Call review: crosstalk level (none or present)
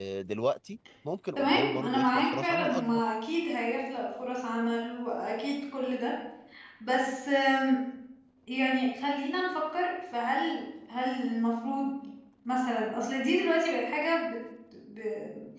present